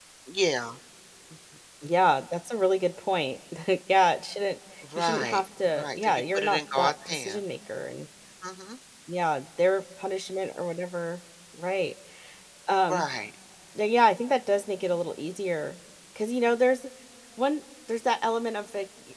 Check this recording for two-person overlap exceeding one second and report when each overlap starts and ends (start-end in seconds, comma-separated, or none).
5.0-7.4